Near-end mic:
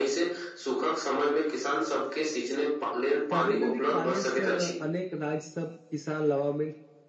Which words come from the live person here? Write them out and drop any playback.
काबेरी नदी के पानी से अनेक राज्य सब किसान लभामित

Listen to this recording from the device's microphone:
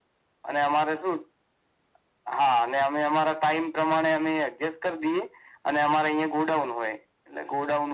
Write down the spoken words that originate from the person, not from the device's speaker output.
none

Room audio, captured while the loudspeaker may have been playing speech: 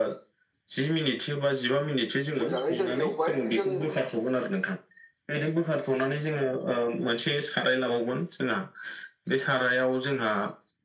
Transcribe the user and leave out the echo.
मोजाङै जों एवबाय जों

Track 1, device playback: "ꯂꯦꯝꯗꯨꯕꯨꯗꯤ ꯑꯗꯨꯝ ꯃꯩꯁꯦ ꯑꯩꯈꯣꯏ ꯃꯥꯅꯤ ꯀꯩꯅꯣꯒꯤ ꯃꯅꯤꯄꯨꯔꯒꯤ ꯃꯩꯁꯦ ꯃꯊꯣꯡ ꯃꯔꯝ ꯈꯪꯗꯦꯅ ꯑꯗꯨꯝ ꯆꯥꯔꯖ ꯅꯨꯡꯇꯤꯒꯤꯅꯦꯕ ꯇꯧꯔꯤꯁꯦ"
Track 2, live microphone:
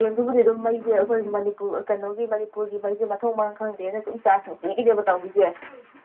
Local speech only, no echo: none

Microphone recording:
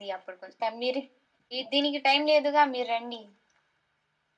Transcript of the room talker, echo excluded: none

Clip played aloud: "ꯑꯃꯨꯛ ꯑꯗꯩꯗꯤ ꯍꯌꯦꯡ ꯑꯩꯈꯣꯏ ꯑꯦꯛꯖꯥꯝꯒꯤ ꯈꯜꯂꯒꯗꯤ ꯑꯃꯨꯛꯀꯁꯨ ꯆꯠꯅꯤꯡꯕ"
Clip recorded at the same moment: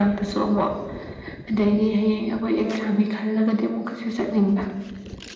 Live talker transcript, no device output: ꯎꯝ

